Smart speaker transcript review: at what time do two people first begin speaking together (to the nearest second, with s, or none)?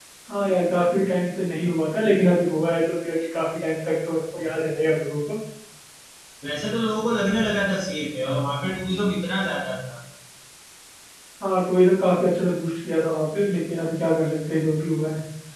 none